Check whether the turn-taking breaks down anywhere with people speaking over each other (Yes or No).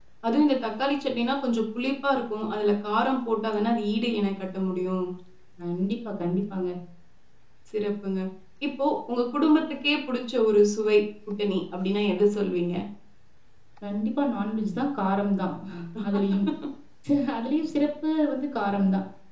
No